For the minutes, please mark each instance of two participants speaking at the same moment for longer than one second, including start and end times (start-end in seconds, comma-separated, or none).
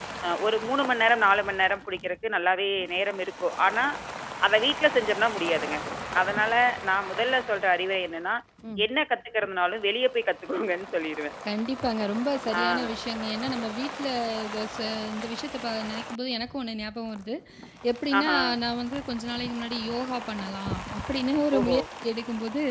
none